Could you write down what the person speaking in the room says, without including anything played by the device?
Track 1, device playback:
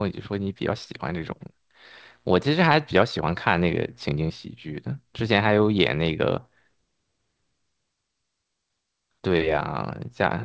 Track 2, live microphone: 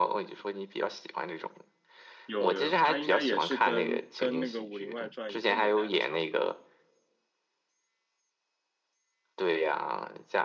有有有，他应该也是跟跟那个《武林外传》一个年代的，差不多，

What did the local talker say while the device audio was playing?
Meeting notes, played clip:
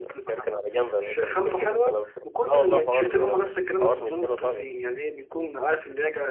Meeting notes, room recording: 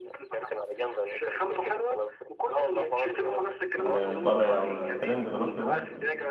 اللي طالع ترند دلوقتي ده

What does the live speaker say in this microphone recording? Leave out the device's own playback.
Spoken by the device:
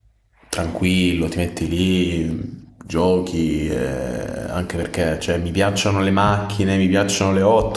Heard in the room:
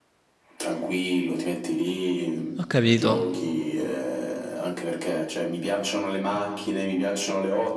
capito.

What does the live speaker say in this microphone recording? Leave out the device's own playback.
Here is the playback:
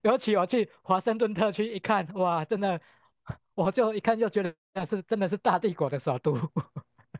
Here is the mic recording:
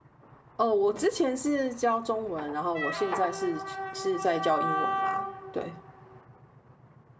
哦，我之前是教中文，然后我现在是是在教英文啦。对，

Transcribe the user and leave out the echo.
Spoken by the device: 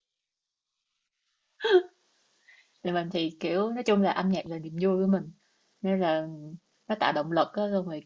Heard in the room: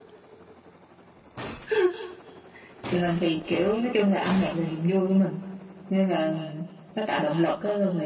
none

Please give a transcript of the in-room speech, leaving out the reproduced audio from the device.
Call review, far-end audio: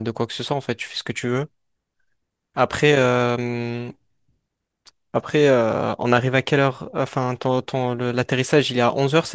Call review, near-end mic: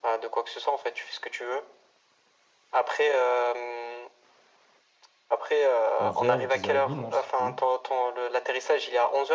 11h ou 10h30, non, je sais plus.

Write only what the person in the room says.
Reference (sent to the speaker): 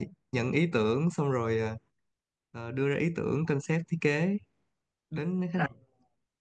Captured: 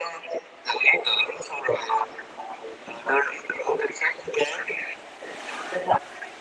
none

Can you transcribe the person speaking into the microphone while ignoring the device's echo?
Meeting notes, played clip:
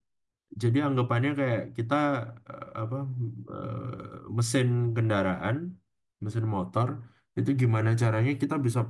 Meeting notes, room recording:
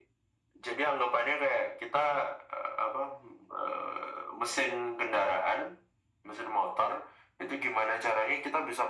none

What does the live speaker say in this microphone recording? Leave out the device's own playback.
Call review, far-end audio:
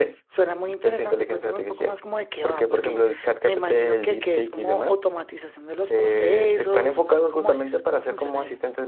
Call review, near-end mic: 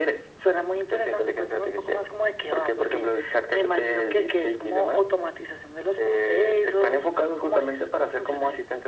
none

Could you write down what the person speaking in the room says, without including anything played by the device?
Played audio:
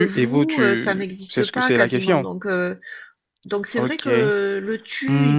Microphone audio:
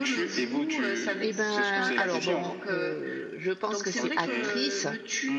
Et ben, alors bon, euh, je pense que c'est actrice,

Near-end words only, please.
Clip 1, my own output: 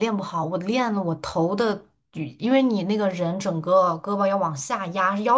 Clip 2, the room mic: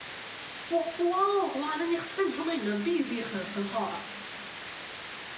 哇哇哦哇，那你那你说明你的臂力很很好啊。

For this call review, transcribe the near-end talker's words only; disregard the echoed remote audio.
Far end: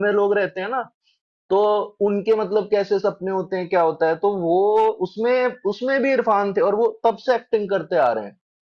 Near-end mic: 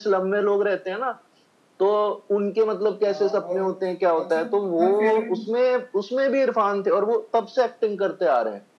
हाँ और अच्छा तुम्हारी फेवरेट

